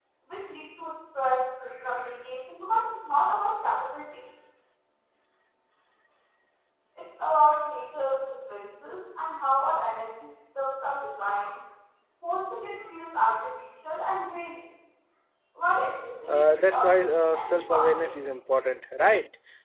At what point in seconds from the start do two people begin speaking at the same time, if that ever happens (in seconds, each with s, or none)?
16.3 s